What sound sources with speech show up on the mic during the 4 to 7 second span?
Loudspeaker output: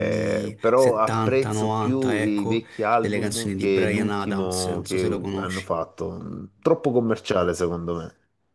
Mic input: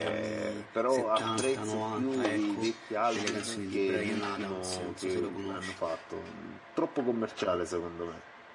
echo only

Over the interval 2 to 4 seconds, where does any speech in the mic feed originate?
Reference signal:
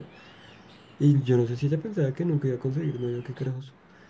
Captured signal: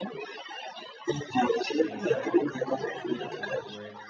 both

